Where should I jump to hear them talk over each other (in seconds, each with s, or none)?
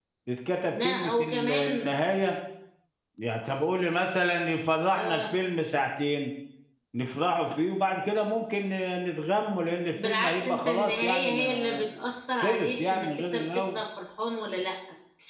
0.7 s